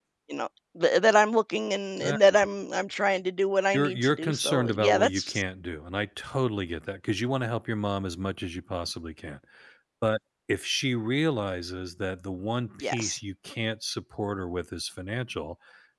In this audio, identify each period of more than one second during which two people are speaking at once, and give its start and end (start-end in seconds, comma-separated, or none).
3.7-5.4